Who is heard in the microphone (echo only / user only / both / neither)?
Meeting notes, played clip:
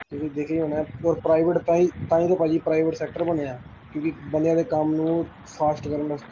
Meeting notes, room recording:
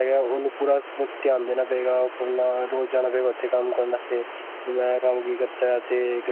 user only